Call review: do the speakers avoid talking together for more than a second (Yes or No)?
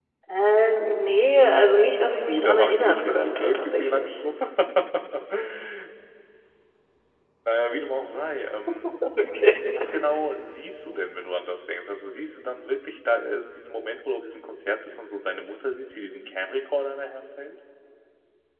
No